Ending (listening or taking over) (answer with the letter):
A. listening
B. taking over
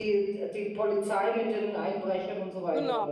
B